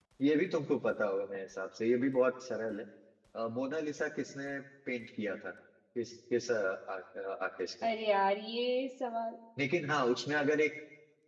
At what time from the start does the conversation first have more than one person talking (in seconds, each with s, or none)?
none